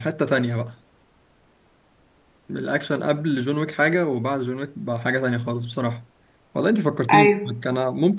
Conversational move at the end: listening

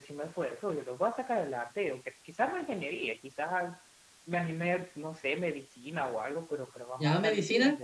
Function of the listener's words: taking over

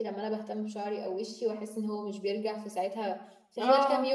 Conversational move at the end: taking over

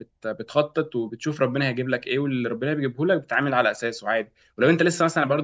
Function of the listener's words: listening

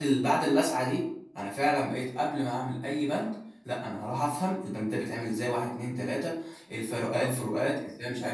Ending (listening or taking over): listening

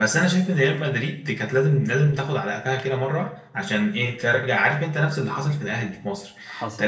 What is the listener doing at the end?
listening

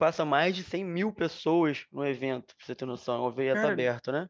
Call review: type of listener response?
taking over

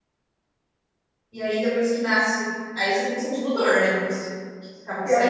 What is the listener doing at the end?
taking over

